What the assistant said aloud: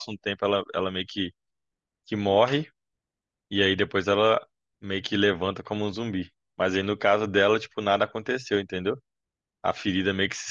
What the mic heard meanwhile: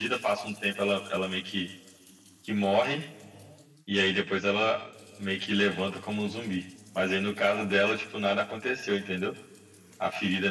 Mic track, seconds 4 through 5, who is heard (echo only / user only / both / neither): echo only